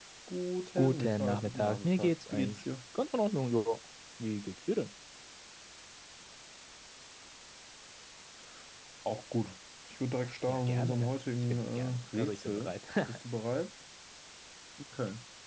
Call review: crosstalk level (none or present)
present